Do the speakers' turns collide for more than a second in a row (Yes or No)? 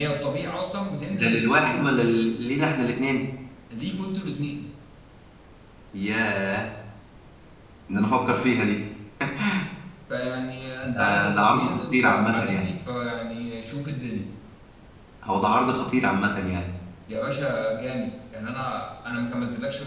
Yes